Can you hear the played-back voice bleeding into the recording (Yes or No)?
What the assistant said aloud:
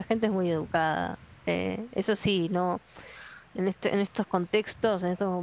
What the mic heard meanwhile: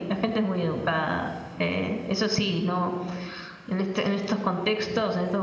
Yes